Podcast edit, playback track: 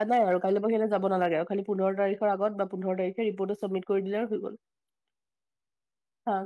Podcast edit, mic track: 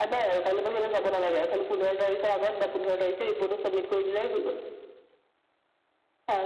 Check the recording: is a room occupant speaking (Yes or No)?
No